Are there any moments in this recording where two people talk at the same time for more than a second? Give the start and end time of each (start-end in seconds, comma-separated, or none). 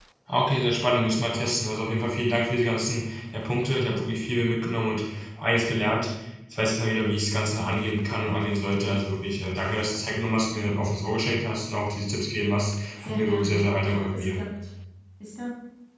13.0-14.4